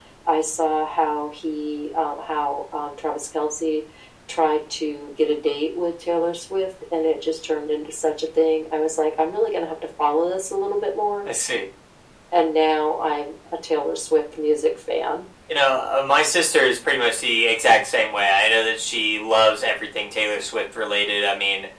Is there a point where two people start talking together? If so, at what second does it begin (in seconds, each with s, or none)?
none